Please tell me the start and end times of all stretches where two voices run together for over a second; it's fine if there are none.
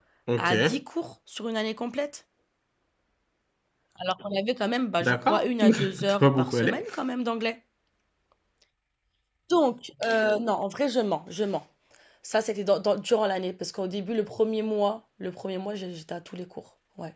5.0-6.8

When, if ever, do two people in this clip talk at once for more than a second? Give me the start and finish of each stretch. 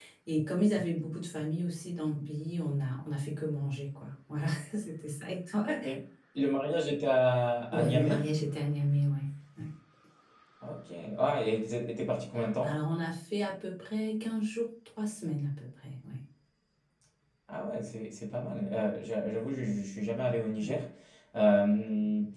none

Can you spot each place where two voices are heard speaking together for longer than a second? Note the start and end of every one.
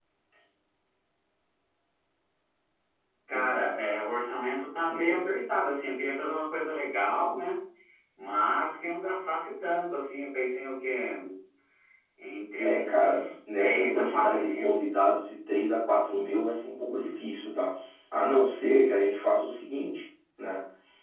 12.6-14.8

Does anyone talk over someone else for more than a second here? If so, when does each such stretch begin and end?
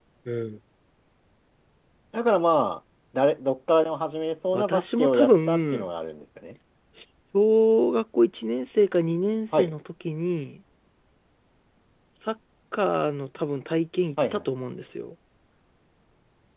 4.5-5.9

